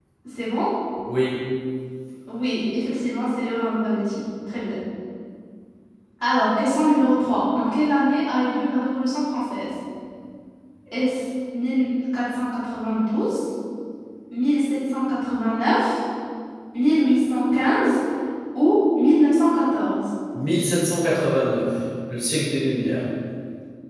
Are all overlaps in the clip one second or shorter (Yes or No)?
Yes